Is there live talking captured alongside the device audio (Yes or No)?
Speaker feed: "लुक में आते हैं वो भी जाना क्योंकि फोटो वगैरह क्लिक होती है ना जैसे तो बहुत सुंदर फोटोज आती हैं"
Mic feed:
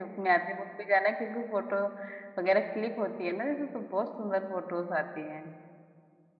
No